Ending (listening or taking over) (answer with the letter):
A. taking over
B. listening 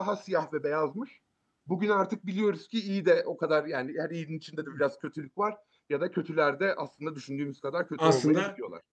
A